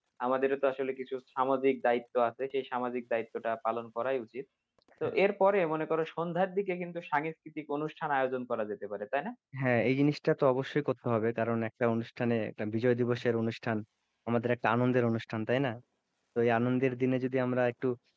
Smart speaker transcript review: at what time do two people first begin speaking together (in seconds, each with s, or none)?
none